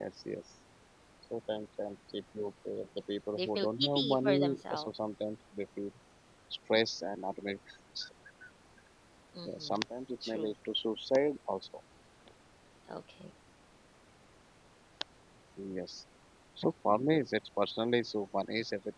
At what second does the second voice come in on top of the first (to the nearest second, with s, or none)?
3 s